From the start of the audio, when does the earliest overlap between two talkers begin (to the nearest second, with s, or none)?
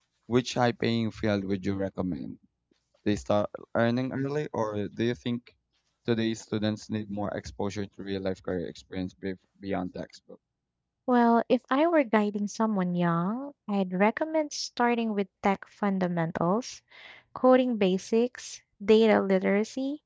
none